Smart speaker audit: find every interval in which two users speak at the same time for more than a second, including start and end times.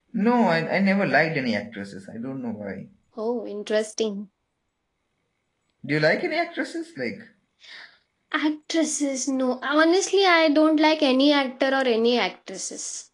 none

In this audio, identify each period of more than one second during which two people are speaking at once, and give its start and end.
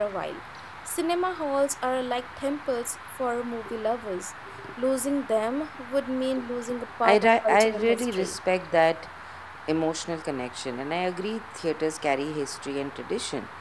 7.0-8.4

